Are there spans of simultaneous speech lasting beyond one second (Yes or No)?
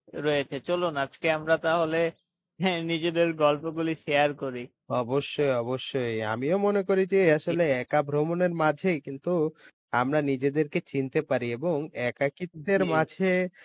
No